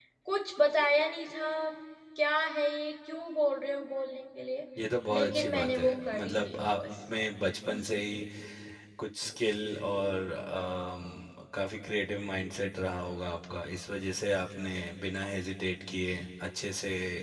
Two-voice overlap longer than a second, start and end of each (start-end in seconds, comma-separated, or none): 5.1-6.8